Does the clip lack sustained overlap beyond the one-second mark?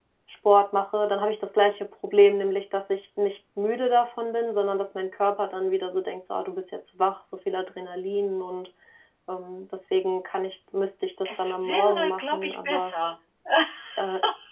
No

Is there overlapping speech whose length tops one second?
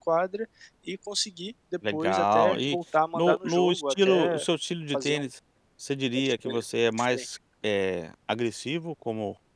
Yes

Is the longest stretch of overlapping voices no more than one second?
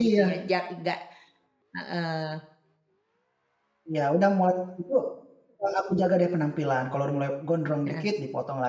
Yes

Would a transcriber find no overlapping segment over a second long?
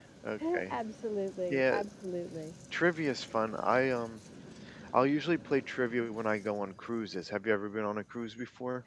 Yes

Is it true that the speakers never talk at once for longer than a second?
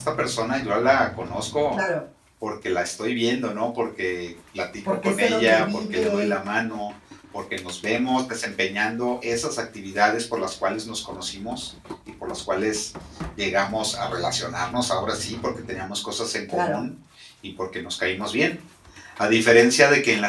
No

